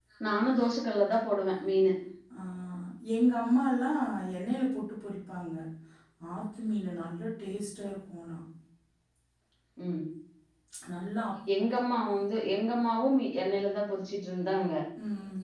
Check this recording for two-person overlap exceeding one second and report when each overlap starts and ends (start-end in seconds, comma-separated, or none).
none